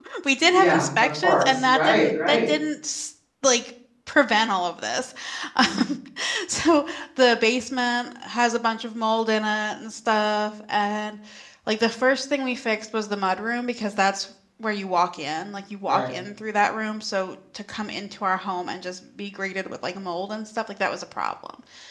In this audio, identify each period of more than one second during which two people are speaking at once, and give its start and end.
0.5-2.5

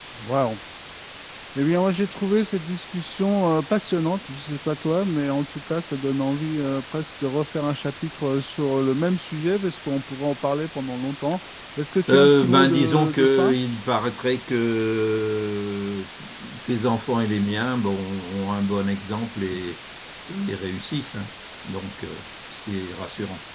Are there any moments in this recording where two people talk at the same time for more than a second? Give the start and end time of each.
12.1-13.6

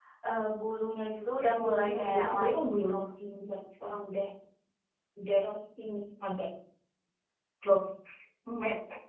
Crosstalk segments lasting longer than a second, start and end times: 1.4-2.9

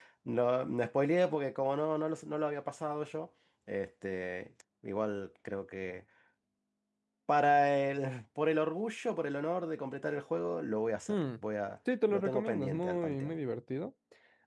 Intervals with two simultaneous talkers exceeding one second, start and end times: 12.1-13.3

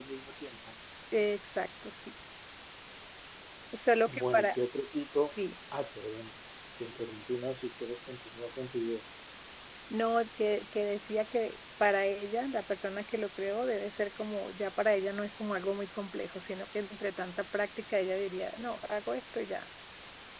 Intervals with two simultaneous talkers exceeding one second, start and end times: none

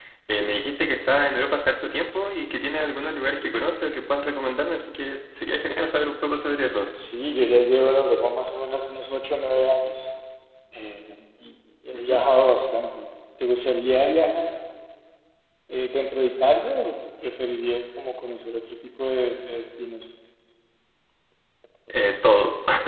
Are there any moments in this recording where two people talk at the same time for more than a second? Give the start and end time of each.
none

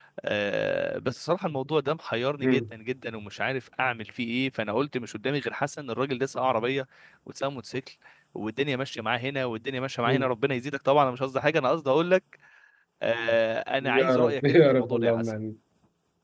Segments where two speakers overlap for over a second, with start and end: 13.8-15.3

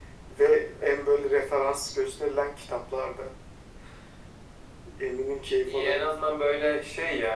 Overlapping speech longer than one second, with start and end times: none

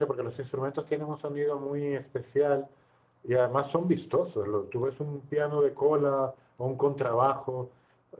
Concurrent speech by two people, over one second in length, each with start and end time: none

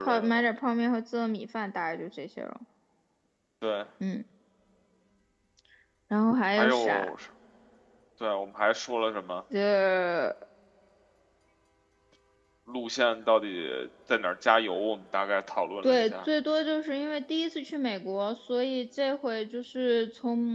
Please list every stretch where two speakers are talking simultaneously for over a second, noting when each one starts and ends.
none

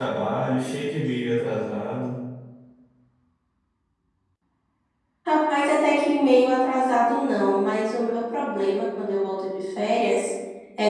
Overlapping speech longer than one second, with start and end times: none

